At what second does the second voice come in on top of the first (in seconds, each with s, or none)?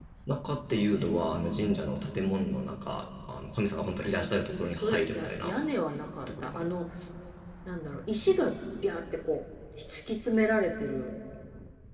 4.0 s